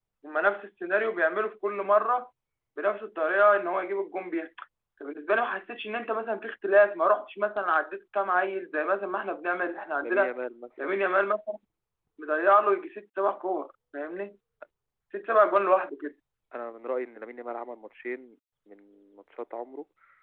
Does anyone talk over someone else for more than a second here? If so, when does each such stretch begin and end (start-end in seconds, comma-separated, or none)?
none